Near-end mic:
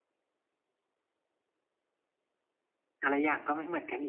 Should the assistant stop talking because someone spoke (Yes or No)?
Yes